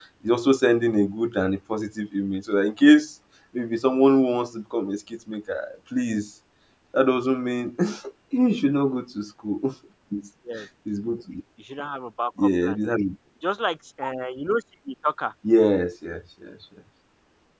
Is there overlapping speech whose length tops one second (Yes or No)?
No